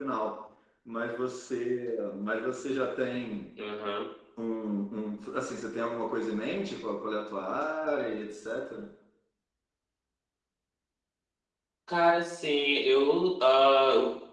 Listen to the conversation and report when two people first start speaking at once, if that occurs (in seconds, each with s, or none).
none